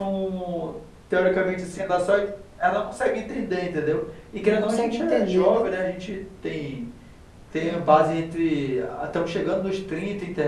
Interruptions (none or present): present